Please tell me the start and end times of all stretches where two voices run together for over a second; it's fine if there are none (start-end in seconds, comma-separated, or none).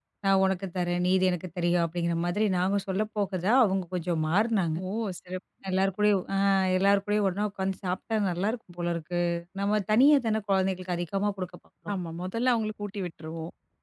none